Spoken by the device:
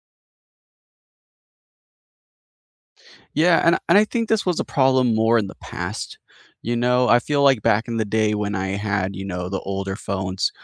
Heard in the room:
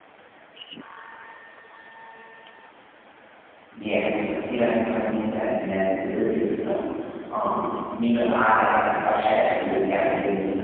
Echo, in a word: none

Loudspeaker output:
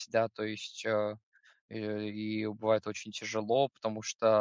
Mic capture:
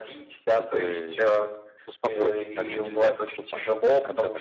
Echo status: present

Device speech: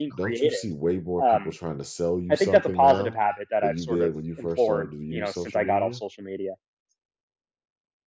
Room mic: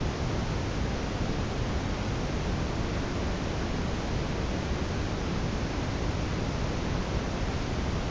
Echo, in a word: none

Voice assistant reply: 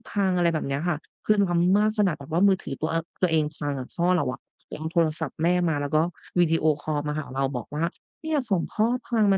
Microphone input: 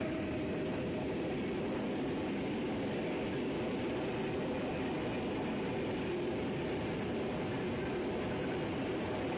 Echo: none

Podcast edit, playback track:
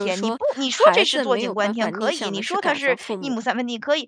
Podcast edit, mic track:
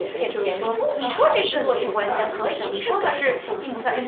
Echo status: present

